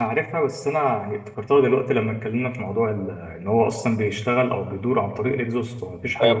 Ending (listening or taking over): taking over